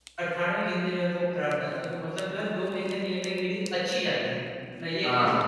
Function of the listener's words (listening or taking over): taking over